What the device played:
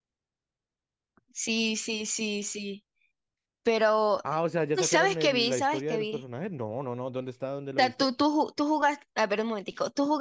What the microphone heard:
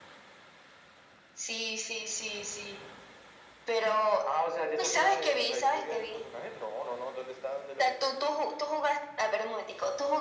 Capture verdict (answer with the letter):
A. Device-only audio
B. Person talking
A